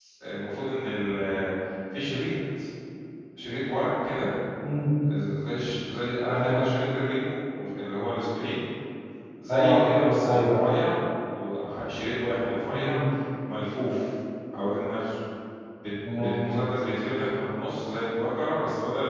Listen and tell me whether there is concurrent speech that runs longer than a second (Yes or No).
No